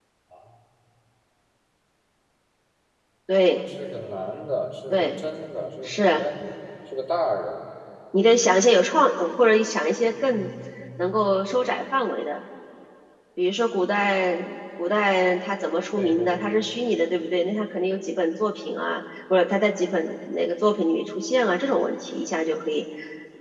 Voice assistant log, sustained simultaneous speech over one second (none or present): none